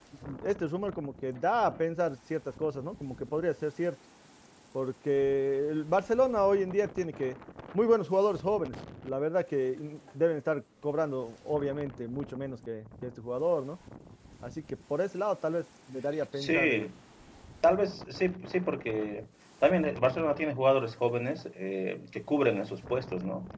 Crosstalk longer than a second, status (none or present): none